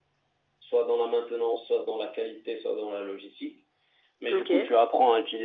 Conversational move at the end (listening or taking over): listening